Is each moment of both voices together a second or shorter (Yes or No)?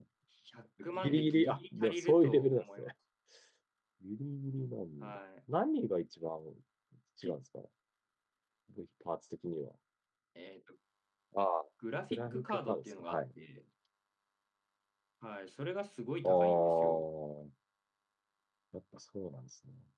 No